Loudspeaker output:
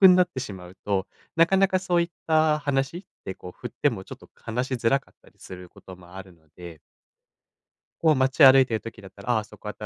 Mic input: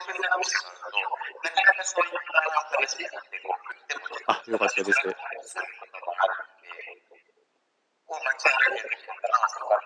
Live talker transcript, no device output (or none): あ、良かったです。